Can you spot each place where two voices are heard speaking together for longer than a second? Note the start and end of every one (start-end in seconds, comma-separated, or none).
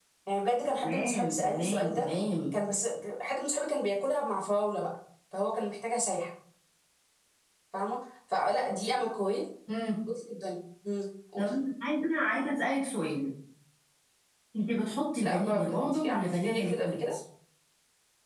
0.8-2.1, 15.2-17.0